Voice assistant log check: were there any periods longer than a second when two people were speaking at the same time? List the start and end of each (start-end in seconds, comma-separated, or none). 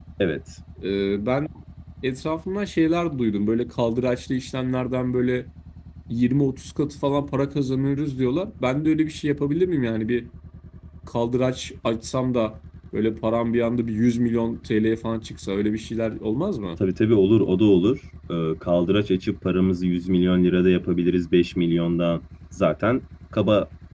none